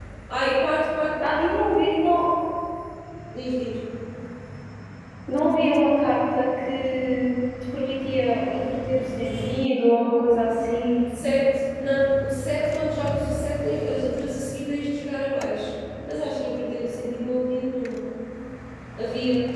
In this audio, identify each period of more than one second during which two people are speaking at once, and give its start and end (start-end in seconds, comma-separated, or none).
none